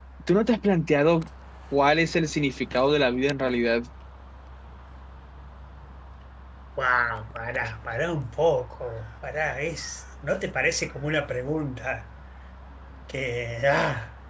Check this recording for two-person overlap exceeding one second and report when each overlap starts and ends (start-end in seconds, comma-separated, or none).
none